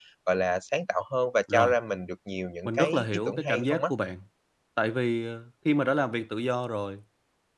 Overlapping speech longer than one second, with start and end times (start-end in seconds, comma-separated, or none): 2.6-3.9